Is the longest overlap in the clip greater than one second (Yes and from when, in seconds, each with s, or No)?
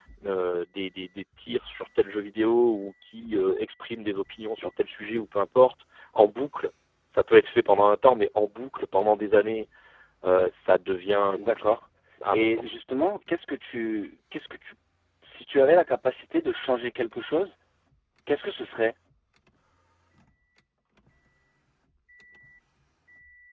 No